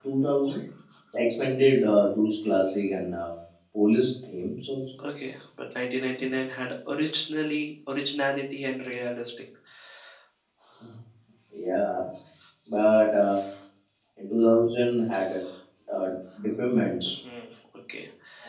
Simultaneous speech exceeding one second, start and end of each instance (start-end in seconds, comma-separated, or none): none